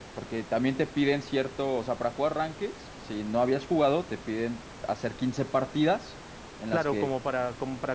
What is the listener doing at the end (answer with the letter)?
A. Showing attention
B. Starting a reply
B